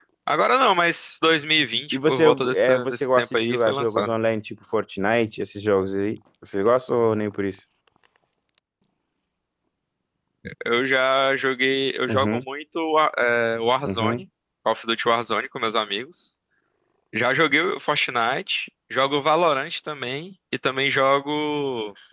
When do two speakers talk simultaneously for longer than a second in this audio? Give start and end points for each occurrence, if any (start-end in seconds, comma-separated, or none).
1.9-4.1